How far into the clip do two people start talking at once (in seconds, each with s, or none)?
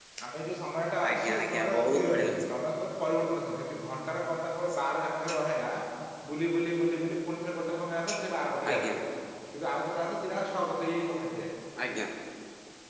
1.1 s